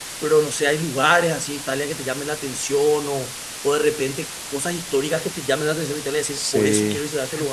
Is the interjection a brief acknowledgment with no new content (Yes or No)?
No